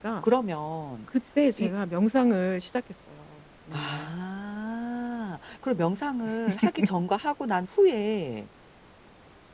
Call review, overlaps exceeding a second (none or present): none